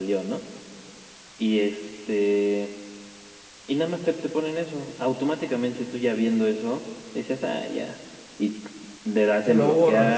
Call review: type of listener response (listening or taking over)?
listening